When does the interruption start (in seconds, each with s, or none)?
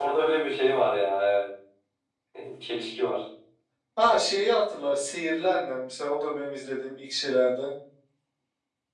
none